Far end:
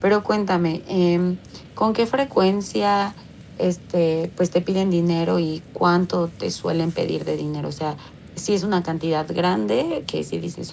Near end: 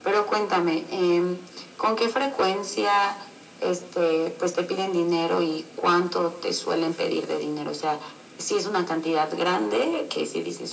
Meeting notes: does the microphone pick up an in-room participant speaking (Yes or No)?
No